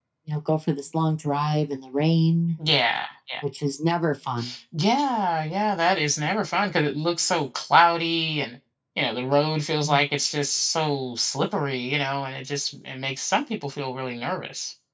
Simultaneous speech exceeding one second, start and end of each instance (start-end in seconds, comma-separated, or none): none